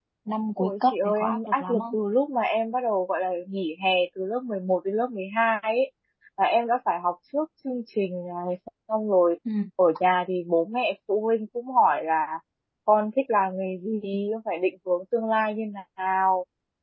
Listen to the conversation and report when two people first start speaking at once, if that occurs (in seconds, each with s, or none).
0.6 s